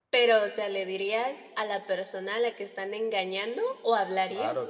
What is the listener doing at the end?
taking over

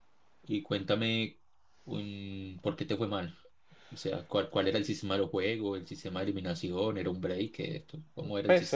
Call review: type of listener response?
taking over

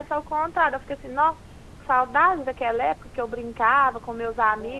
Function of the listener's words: listening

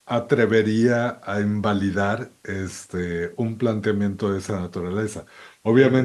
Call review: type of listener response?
listening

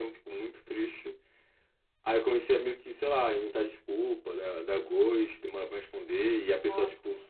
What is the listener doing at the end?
listening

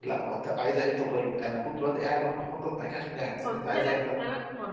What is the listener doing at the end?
taking over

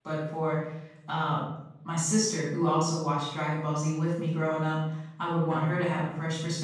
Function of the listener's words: listening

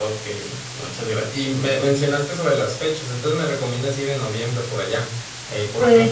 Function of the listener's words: taking over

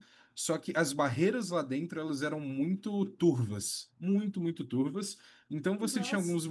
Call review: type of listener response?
listening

